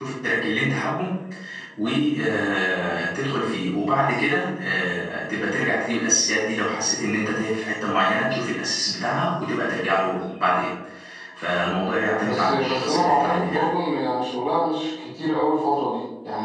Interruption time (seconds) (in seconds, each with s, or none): 12.2 s